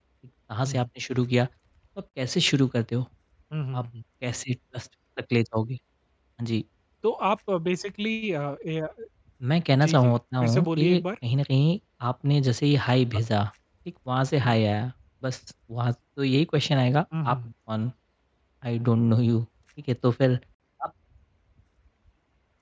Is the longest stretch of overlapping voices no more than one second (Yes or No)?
No